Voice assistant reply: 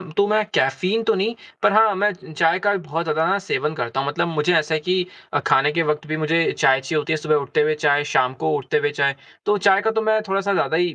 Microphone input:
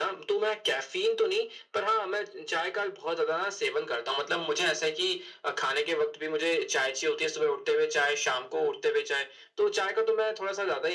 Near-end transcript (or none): none